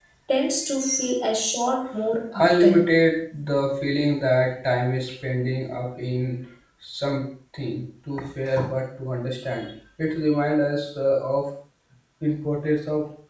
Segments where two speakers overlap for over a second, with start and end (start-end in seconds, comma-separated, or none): none